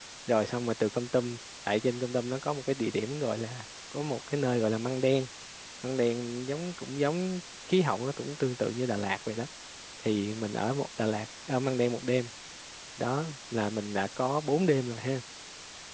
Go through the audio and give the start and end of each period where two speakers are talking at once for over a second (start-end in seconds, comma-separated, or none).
none